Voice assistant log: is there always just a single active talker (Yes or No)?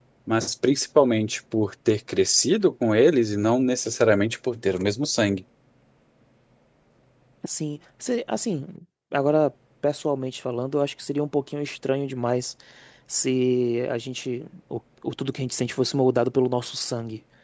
Yes